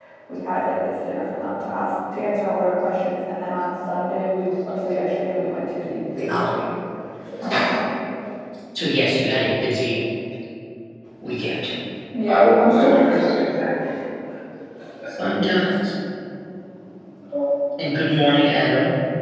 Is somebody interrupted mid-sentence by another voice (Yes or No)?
Yes